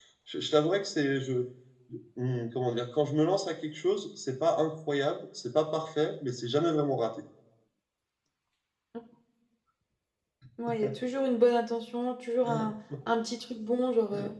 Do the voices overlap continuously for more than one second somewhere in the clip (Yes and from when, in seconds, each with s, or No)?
No